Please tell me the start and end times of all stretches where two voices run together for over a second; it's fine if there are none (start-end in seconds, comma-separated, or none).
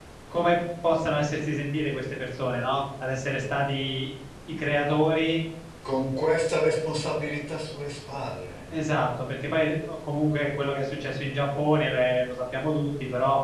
none